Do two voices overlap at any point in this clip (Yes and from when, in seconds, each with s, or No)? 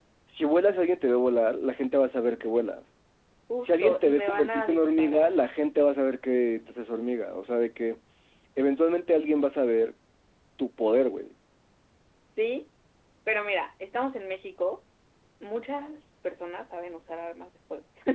Yes, from 3.6 s